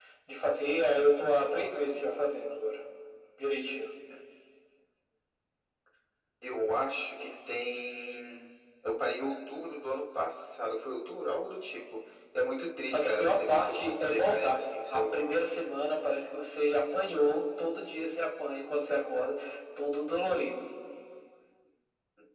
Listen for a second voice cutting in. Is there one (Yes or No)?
Yes